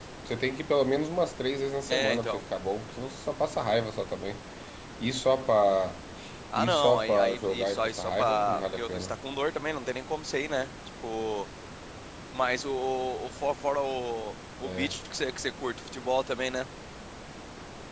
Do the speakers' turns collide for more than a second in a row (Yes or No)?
Yes